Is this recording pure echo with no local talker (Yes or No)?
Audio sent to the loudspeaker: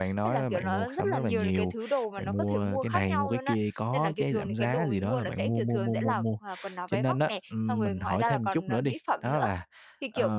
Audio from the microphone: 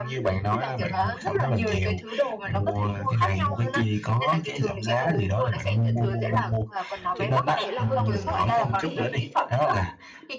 No